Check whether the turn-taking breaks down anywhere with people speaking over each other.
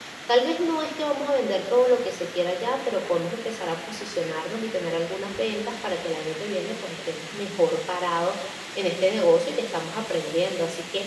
No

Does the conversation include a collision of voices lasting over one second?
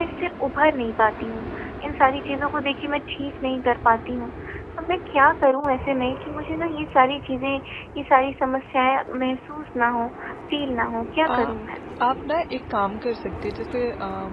No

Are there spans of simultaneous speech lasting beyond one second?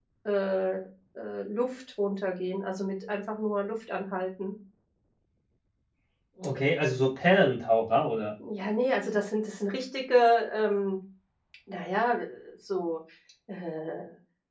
No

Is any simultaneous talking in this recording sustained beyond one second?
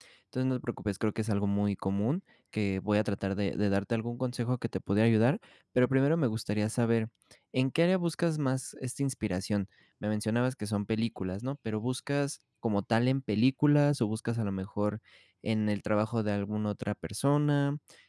No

